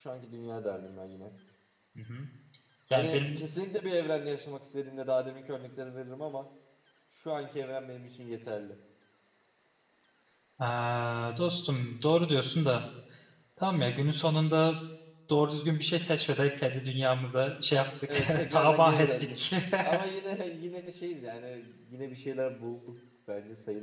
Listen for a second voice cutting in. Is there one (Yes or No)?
Yes